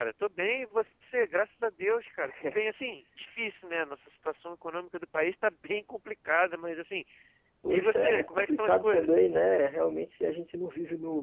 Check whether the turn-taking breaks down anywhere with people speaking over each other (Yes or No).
Yes